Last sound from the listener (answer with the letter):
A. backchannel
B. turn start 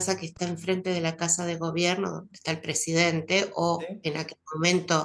A